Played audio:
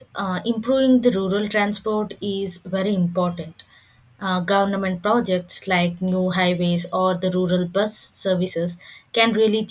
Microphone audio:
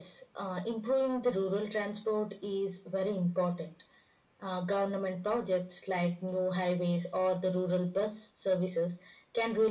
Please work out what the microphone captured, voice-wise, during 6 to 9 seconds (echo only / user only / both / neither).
echo only